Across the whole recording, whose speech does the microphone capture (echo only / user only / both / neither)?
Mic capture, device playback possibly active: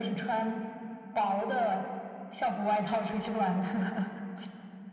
echo only